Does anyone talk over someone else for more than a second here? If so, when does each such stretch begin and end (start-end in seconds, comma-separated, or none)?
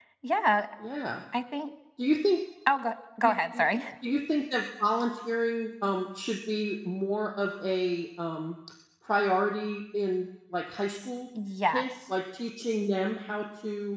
none